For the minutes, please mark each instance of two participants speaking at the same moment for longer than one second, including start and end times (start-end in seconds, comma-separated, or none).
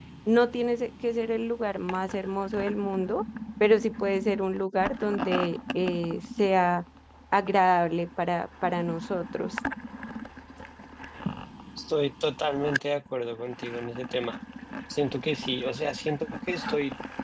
none